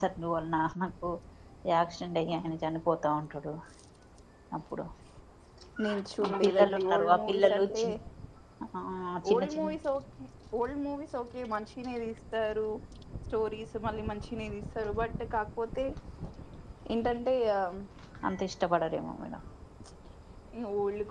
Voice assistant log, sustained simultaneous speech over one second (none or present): present